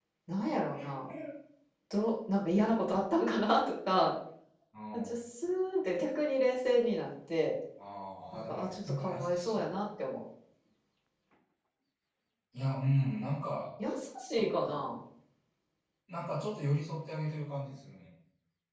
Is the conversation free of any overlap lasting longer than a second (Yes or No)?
No